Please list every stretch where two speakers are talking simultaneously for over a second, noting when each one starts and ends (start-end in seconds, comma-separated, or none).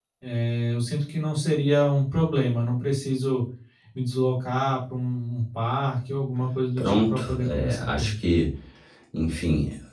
6.8-8.1